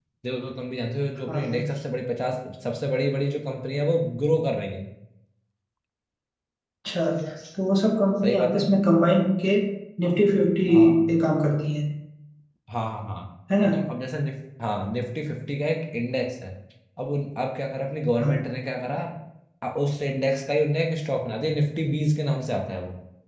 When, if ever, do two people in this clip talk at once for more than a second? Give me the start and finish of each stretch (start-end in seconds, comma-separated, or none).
none